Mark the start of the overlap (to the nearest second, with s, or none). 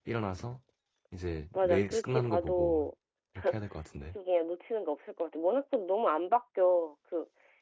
2 s